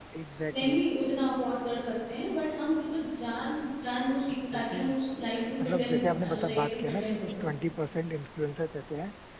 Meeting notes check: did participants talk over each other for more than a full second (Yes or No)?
Yes